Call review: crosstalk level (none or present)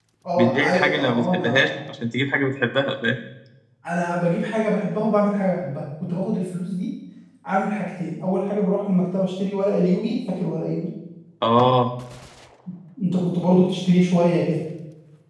present